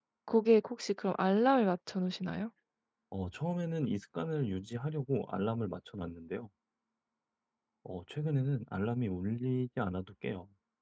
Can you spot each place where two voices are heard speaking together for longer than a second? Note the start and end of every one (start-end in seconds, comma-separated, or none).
none